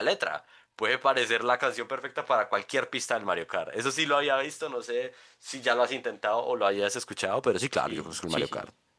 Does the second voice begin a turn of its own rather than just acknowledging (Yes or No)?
Yes